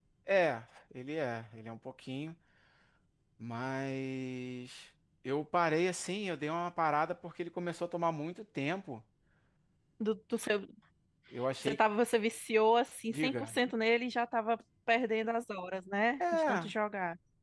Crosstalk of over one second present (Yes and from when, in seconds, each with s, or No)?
No